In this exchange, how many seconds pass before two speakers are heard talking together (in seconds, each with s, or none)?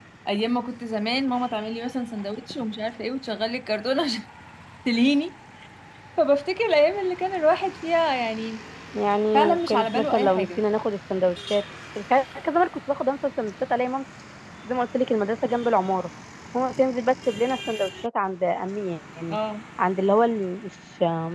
9.3 s